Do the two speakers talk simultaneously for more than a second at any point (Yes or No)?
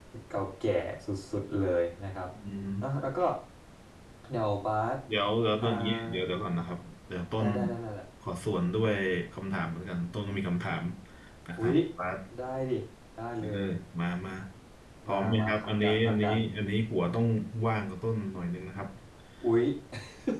Yes